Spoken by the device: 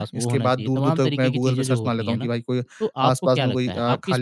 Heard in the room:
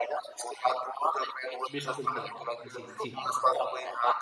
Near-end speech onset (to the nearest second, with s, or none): 2 s